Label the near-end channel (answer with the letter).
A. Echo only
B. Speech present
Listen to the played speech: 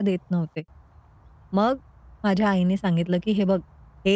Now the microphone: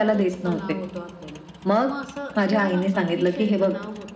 B